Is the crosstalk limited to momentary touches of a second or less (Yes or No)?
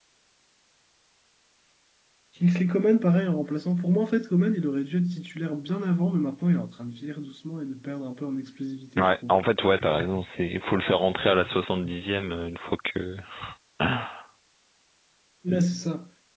Yes